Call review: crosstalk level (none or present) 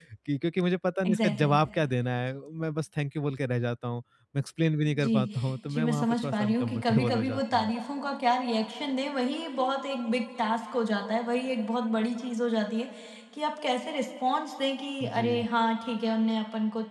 present